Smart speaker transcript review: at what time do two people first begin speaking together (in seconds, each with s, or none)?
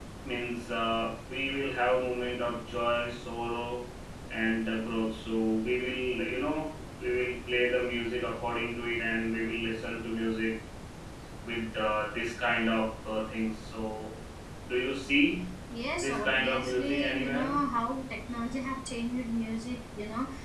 16.0 s